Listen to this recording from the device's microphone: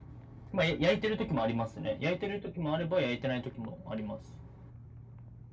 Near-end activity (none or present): none